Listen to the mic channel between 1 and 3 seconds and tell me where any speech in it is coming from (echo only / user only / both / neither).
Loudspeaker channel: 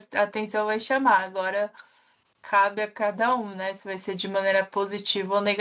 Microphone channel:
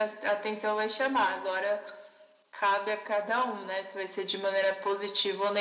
echo only